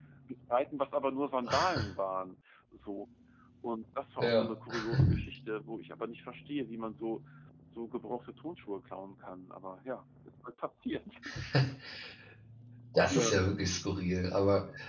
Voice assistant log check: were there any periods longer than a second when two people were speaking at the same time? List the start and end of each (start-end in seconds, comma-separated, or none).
none